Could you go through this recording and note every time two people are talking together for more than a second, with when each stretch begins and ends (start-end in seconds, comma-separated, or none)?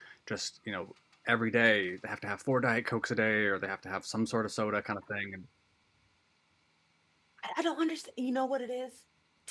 none